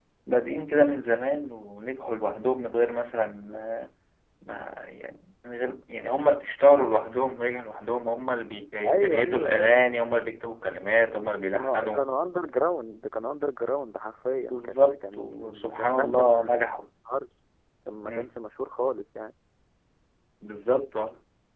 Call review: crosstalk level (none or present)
present